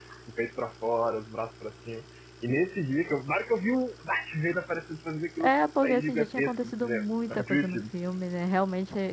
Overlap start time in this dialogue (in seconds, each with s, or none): 5.4 s